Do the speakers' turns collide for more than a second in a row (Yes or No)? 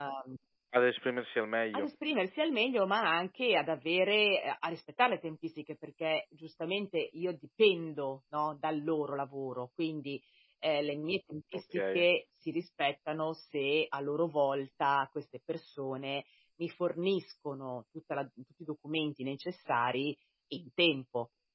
No